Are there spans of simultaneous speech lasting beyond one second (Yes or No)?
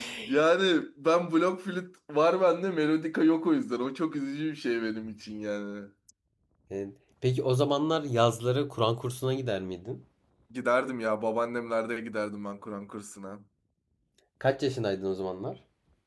No